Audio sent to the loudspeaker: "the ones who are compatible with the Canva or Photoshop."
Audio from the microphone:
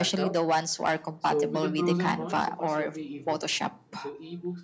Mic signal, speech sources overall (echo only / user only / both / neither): both